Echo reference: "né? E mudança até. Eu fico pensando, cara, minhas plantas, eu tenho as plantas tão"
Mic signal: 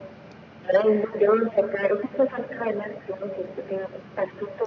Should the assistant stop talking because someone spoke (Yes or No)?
No